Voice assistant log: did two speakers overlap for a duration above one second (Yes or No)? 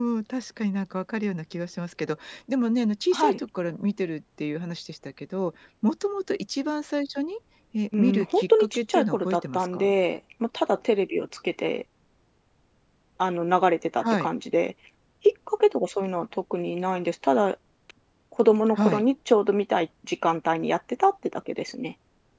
Yes